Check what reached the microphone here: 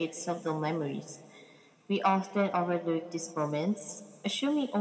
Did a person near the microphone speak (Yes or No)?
No